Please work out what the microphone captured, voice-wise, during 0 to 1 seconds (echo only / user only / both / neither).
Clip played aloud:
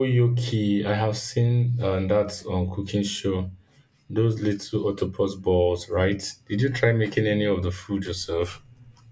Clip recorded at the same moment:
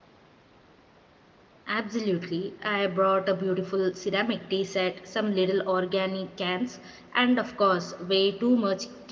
neither